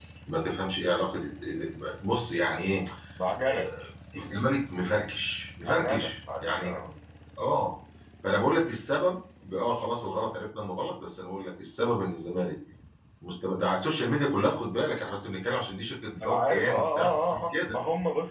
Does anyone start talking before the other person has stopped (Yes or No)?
Yes